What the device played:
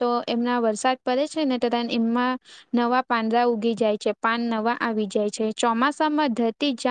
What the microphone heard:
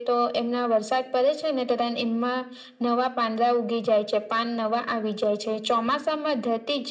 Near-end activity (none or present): none